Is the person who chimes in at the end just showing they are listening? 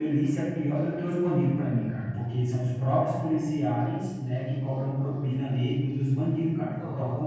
No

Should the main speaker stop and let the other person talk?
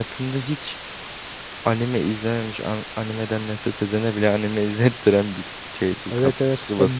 Yes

